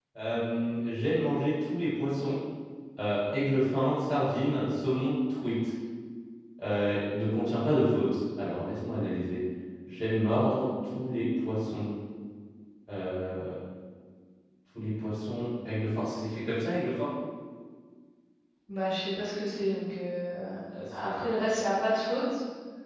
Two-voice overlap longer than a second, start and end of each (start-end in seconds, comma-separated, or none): none